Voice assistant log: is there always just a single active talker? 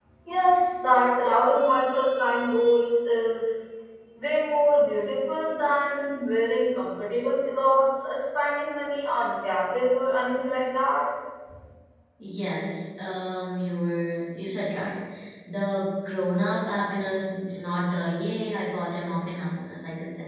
Yes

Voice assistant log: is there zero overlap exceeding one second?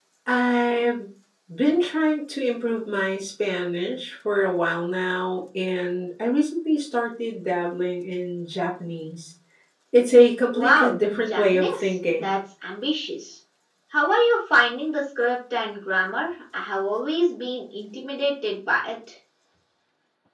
No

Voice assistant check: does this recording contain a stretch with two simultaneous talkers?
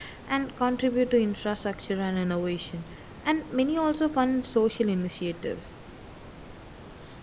No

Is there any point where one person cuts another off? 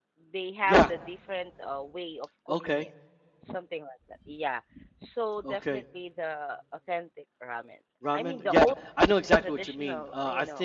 Yes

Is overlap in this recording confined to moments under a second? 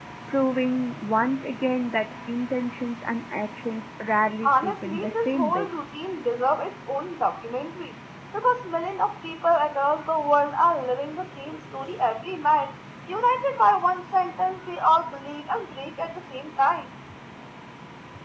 No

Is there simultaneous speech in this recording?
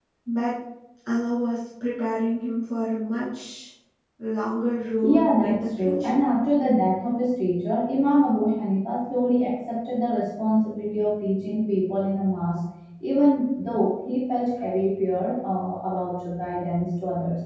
Yes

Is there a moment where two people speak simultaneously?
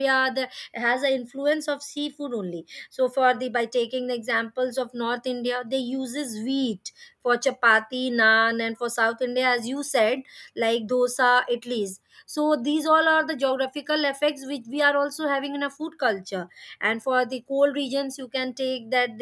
No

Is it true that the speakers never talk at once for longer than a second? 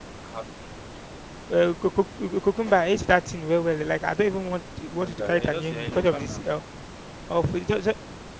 No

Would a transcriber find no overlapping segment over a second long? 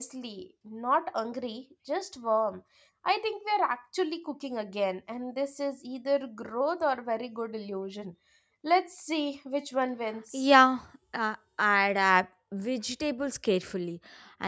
Yes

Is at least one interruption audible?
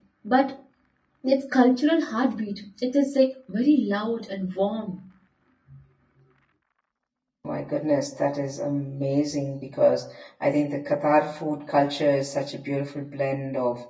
No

